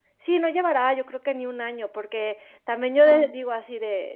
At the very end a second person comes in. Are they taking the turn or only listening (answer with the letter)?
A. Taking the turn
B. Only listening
B